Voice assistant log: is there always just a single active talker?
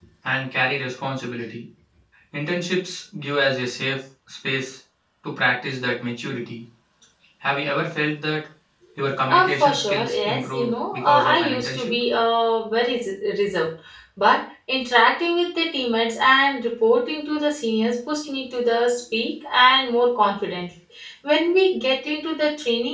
No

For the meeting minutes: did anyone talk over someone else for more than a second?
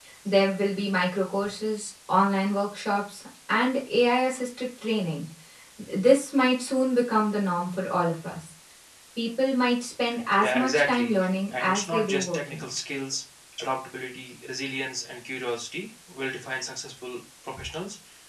Yes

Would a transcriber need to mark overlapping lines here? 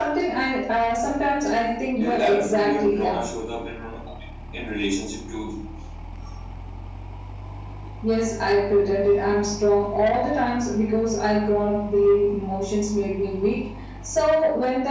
Yes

